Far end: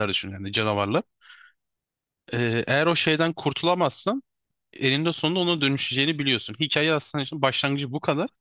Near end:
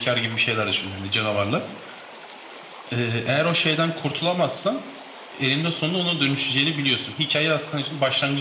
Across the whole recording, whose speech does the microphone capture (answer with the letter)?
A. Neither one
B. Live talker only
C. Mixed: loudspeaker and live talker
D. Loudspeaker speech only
D